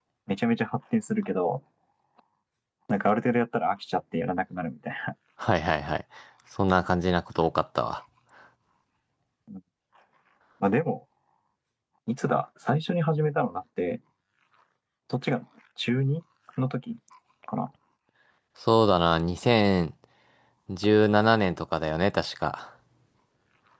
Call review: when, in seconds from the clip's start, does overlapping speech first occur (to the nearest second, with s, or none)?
none